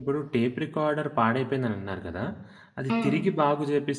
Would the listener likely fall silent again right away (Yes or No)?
Yes